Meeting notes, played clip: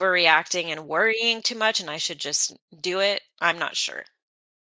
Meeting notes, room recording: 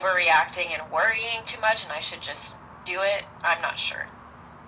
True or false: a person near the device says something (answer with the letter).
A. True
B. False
B